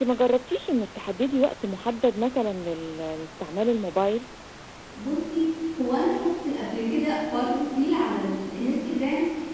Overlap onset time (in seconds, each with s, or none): none